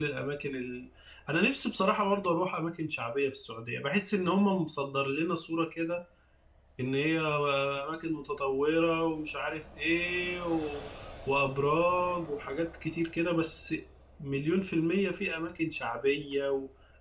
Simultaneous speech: No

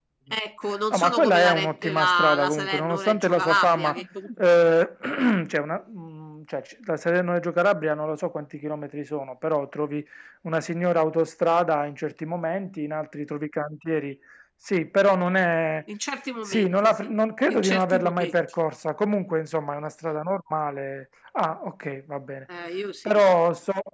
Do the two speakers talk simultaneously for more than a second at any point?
Yes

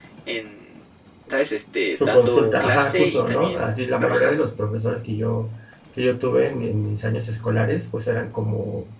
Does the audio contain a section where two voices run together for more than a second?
Yes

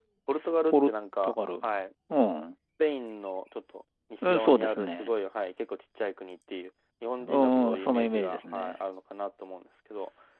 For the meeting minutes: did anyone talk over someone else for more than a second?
Yes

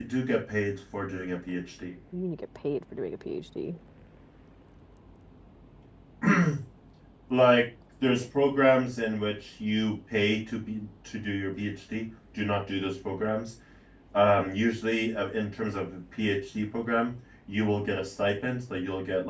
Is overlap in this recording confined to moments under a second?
Yes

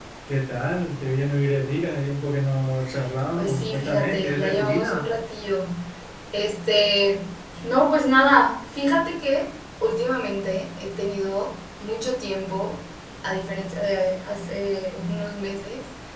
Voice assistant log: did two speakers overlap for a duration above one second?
Yes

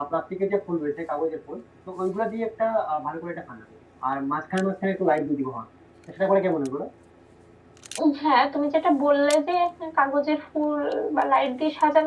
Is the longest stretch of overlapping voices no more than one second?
Yes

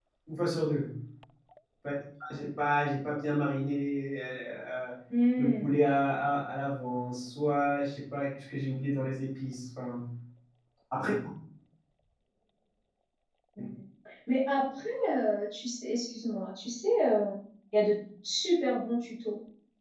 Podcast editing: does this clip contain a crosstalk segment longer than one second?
No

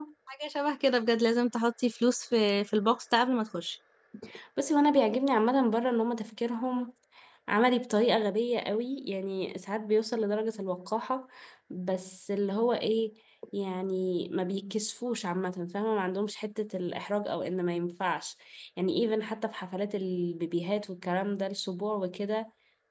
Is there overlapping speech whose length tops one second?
No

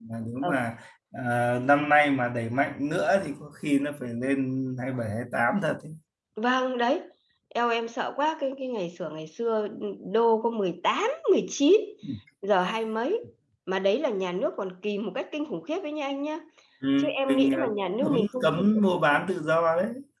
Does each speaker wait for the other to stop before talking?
No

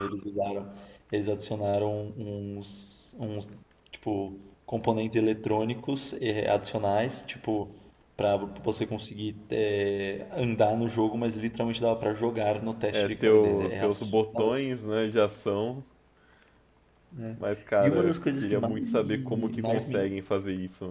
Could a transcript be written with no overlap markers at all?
No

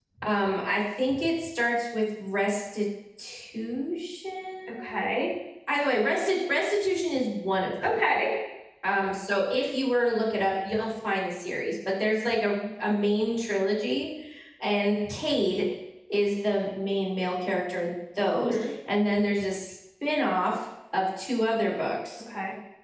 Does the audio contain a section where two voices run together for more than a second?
No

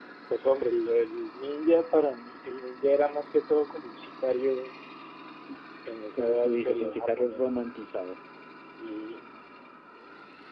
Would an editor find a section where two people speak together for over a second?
Yes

